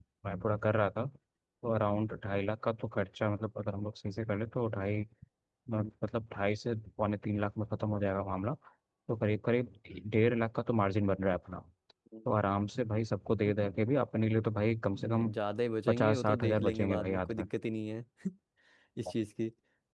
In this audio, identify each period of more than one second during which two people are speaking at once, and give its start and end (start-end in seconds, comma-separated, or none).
15.9-17.4